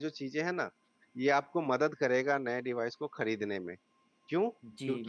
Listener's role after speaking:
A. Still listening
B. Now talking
A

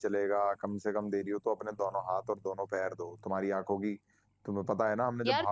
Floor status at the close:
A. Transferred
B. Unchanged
A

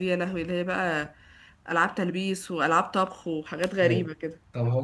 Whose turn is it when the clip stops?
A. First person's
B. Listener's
B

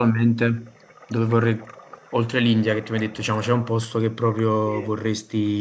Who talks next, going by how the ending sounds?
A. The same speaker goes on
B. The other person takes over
A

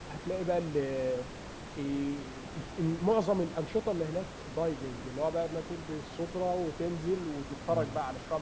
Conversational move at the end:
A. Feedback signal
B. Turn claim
A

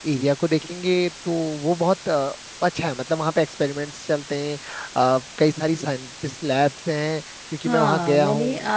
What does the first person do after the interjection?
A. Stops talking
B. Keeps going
A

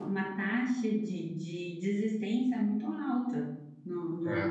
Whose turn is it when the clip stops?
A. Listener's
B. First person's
B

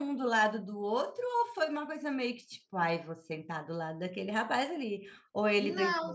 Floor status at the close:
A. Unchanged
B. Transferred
B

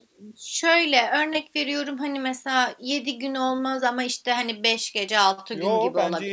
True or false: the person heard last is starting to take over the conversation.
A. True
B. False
A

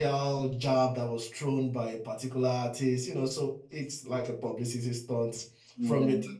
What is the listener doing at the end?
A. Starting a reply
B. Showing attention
A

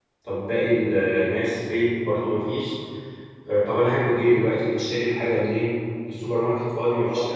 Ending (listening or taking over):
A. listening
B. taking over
B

